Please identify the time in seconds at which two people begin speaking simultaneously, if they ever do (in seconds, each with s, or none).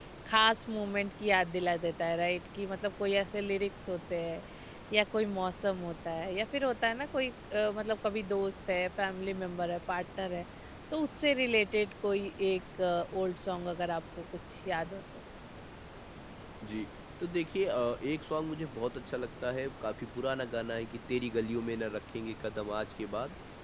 none